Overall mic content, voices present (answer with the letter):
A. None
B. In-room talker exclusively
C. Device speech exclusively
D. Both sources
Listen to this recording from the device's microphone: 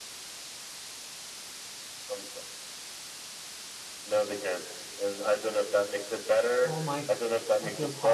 D